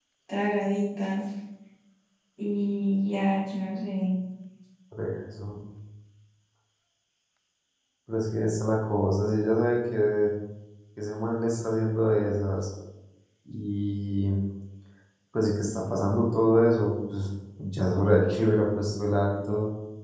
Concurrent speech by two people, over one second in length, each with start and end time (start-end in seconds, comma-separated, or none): none